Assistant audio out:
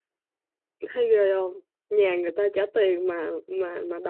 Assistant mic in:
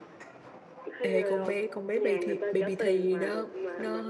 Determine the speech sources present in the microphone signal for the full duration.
both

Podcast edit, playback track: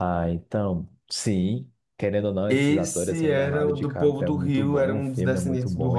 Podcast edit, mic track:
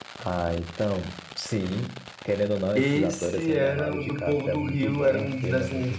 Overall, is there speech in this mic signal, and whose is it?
echo only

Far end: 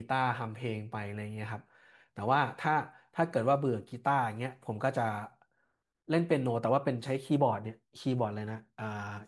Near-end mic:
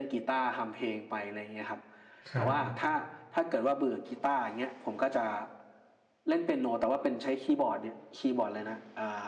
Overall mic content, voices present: both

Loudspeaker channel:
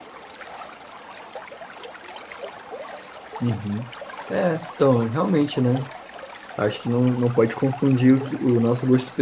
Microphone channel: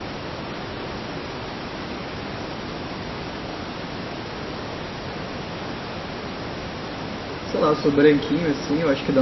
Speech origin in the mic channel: user only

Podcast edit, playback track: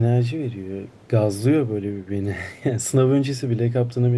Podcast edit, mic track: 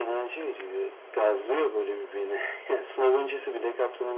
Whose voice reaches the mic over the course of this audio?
echo only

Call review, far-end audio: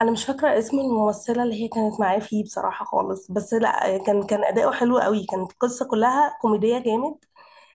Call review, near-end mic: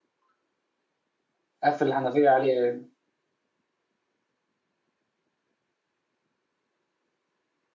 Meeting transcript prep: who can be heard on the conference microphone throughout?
user only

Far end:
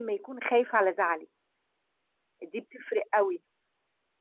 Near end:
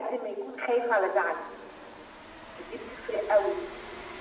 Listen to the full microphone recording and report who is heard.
echo only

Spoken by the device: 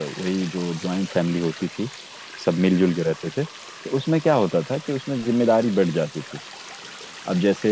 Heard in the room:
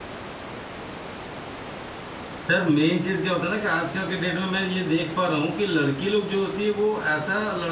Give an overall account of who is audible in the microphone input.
user only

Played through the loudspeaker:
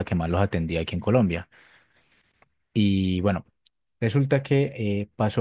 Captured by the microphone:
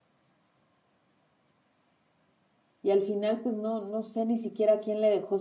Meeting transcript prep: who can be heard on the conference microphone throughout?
user only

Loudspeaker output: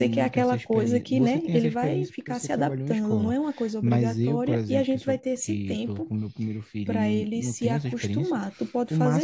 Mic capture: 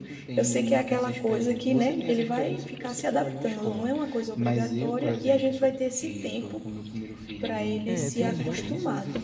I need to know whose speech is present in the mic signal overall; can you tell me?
both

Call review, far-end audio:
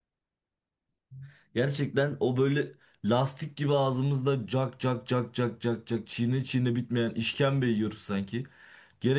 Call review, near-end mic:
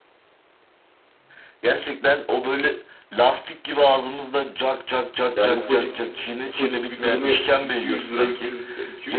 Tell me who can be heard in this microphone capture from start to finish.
both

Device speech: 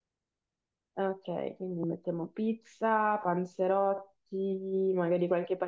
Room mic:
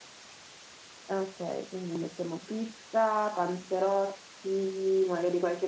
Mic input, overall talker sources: echo only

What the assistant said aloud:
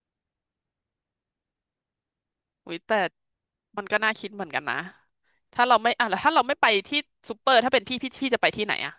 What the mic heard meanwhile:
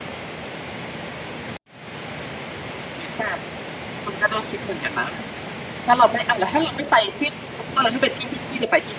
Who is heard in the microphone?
echo only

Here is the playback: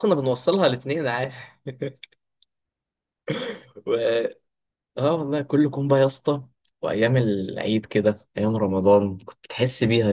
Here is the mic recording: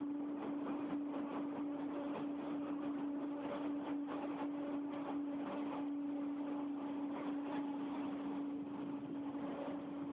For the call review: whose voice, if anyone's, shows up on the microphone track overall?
neither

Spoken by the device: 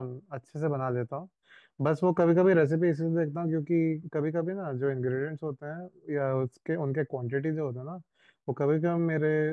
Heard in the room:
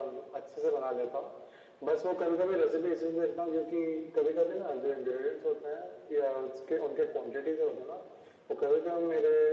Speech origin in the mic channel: echo only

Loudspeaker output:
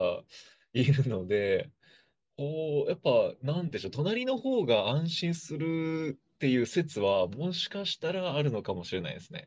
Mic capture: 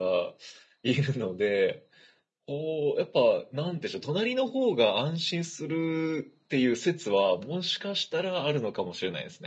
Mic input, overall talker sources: echo only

